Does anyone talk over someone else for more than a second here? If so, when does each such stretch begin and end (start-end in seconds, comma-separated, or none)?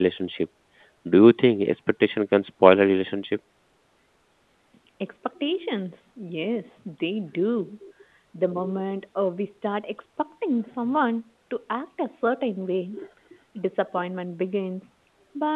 none